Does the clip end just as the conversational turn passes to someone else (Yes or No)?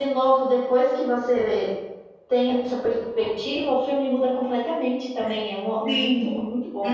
Yes